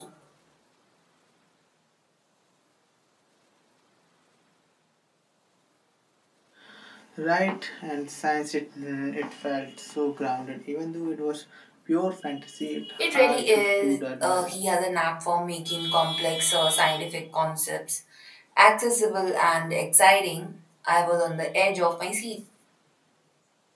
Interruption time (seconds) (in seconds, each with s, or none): 13.0 s